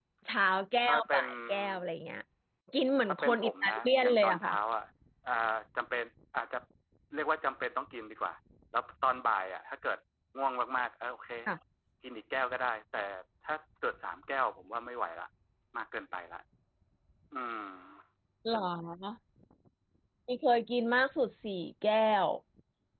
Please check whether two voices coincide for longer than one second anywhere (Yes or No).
Yes